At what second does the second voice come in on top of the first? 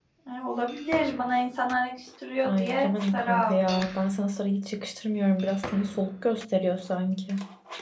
2.4 s

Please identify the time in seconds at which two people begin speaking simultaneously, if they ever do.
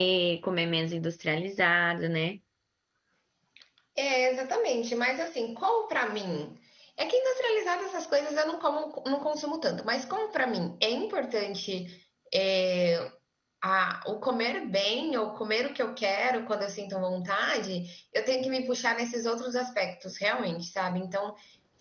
none

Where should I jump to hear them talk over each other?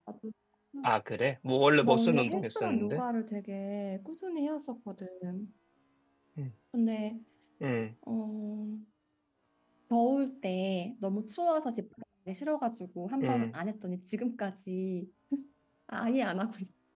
1.8 s

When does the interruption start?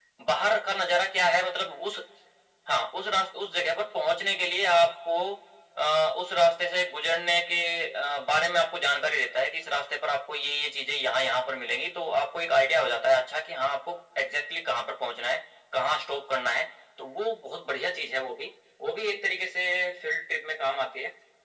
none

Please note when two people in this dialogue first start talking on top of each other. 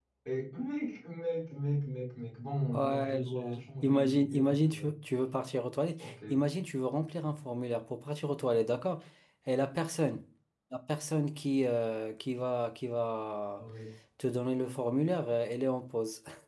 2.7 s

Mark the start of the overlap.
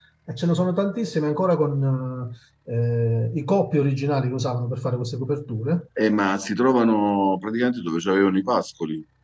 none

